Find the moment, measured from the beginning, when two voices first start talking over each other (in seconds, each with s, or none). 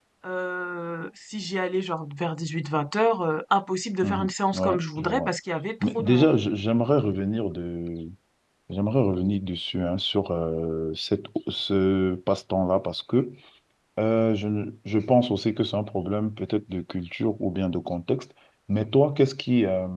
4.0 s